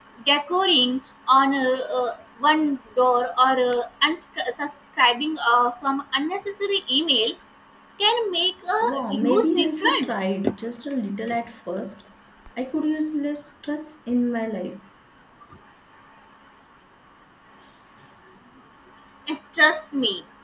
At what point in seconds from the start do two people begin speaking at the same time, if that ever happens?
8.8 s

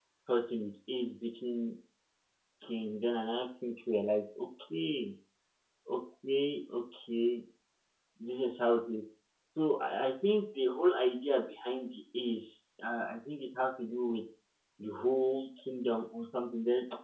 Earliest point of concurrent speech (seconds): none

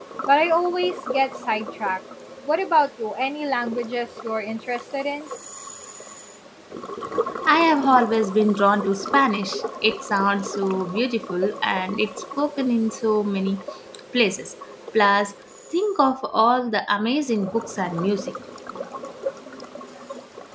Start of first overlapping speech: none

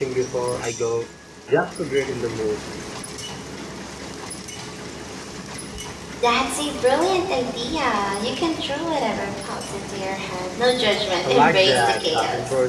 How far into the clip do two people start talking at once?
11.2 s

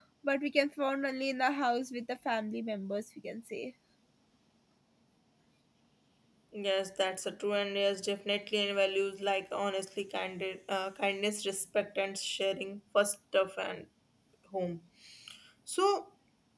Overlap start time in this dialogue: none

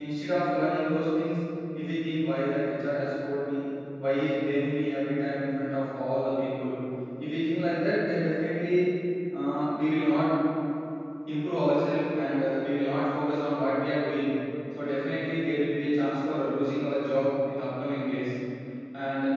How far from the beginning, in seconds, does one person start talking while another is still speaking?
none

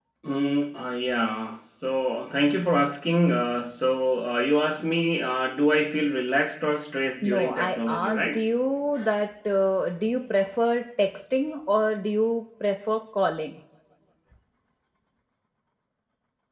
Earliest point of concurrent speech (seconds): 7.2 s

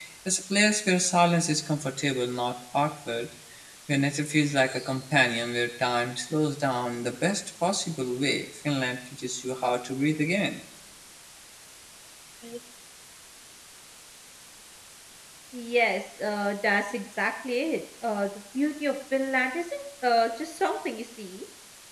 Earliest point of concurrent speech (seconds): none

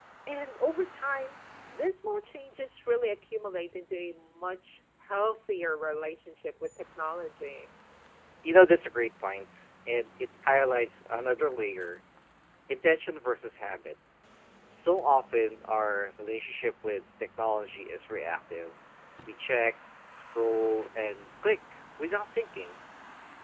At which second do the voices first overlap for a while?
none

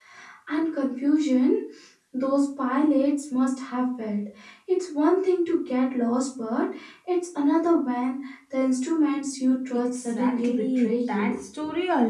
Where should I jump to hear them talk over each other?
9.9 s

